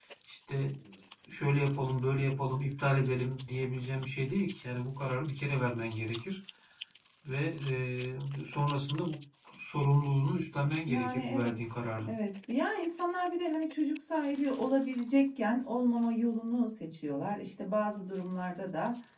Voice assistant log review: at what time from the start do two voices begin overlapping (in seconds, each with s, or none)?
10.9 s